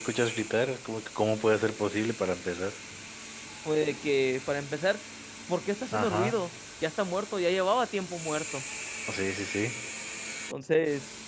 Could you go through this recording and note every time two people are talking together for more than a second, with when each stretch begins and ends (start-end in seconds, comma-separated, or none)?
none